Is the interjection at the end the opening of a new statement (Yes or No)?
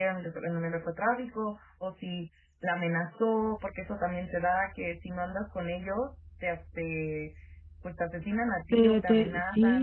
Yes